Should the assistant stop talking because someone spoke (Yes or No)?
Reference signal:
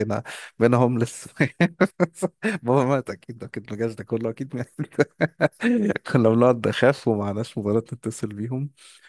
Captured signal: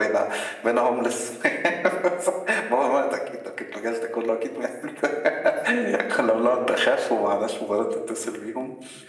No